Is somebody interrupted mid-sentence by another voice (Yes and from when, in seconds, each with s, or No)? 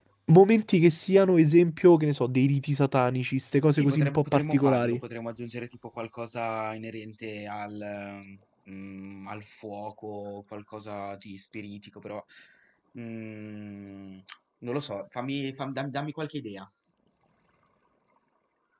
Yes, from 3.8 s